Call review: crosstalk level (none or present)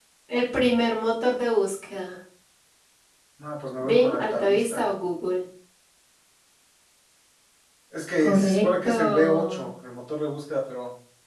present